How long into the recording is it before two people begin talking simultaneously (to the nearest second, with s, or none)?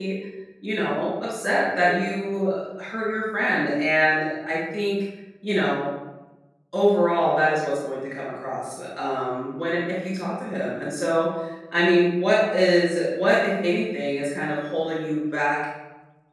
none